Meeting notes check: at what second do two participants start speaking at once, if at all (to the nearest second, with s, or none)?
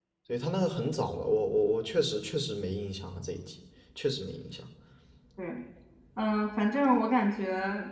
none